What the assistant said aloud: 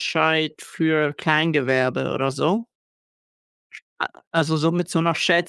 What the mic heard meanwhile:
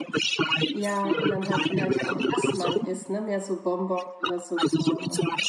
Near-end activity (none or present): present